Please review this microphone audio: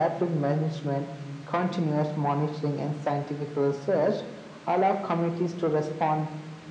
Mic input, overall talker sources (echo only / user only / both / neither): echo only